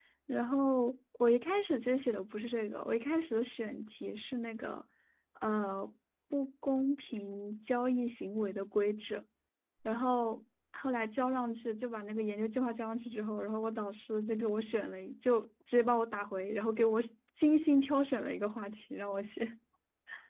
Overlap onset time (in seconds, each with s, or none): none